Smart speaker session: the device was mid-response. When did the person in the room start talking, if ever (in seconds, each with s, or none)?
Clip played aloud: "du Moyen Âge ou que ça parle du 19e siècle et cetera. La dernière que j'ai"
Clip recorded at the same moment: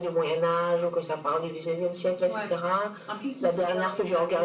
2.3 s